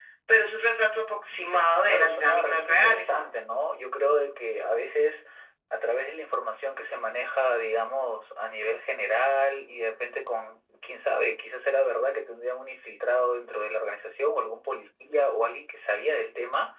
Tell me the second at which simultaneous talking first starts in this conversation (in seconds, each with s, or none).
1.9 s